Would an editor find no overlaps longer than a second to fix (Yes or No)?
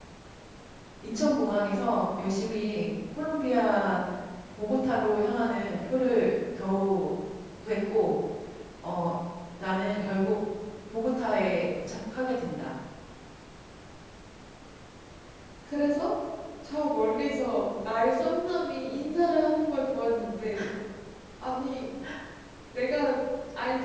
Yes